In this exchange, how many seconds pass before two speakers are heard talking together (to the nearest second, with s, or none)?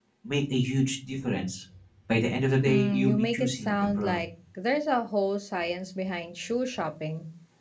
3 s